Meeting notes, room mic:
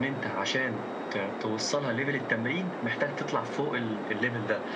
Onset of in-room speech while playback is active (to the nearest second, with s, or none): none